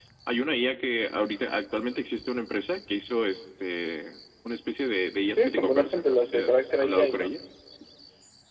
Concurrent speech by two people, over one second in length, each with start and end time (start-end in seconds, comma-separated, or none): 5.4-7.3